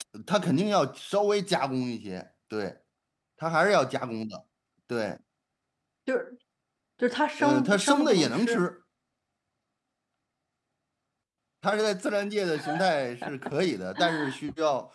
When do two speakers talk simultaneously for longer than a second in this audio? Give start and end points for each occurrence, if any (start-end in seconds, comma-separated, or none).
7.4-8.6